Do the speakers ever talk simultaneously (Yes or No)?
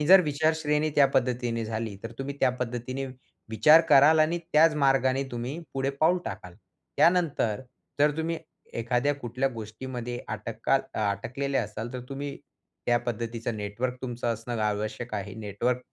No